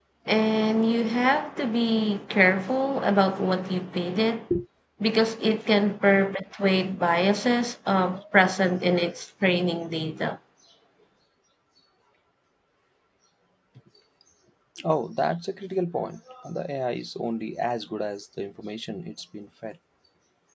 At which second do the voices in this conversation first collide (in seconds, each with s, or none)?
none